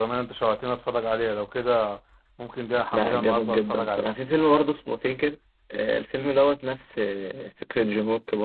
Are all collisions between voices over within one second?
No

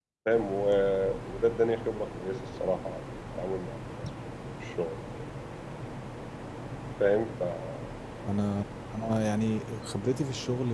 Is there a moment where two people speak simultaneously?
No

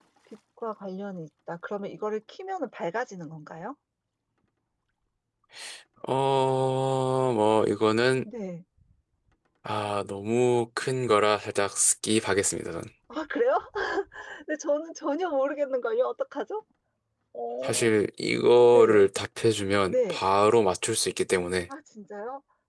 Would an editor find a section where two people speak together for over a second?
No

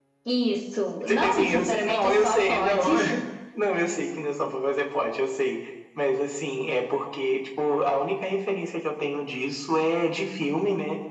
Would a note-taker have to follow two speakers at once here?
Yes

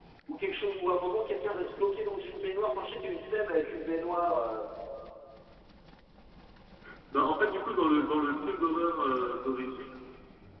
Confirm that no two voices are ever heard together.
Yes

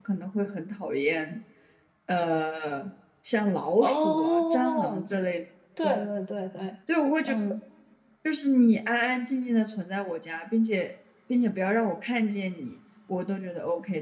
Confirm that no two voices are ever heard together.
No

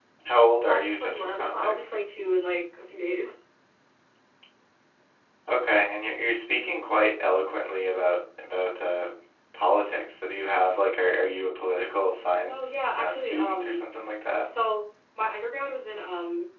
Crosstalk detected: Yes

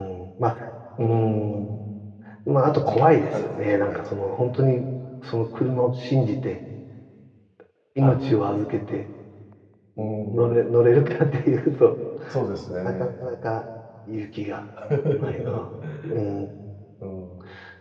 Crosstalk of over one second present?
Yes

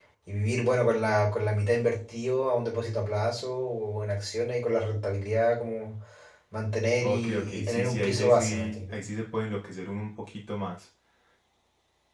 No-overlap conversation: No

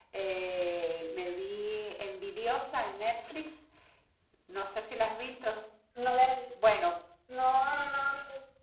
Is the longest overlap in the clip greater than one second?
No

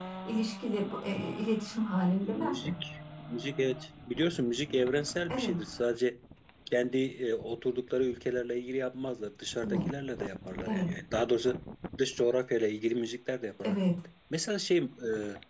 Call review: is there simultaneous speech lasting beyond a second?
No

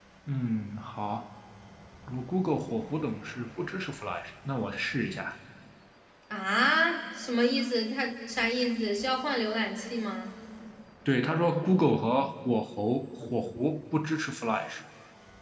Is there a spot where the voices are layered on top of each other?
No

